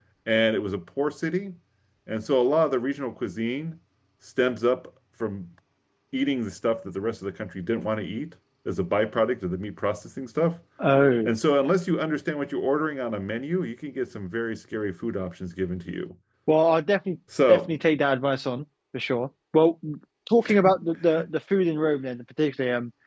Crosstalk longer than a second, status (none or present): none